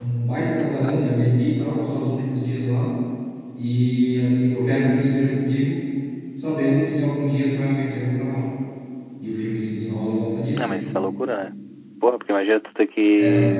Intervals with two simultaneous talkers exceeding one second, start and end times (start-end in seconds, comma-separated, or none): none